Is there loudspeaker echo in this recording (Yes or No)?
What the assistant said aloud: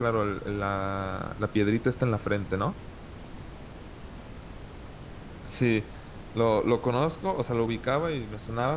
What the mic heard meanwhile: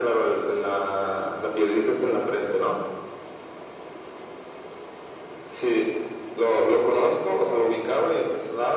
Yes